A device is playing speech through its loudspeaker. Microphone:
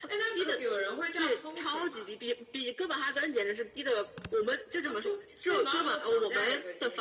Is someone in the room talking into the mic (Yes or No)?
No